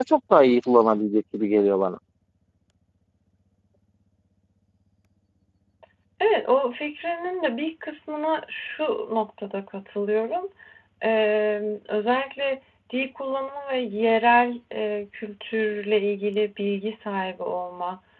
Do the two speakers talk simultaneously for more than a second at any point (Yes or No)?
No